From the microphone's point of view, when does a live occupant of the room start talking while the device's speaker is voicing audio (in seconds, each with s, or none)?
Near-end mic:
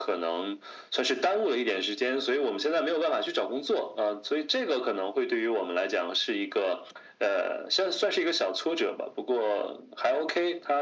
none